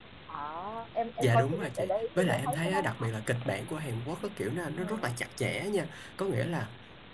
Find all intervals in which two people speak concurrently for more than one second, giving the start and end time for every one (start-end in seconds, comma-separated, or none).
1.2-3.1